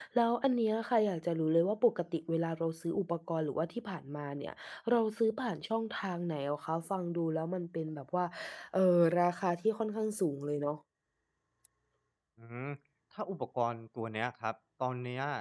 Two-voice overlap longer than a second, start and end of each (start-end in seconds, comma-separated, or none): none